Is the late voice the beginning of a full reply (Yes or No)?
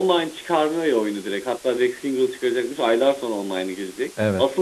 No